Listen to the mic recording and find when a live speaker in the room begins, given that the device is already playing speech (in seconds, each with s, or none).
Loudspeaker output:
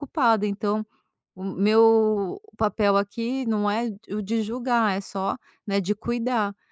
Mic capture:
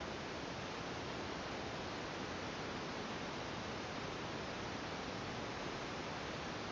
none